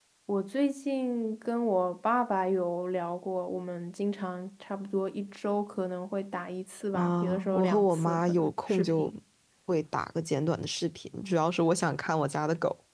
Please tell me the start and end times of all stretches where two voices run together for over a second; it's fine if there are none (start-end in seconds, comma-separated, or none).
6.9-9.1